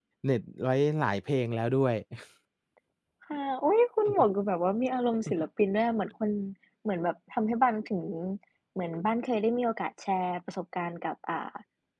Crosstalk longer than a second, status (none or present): none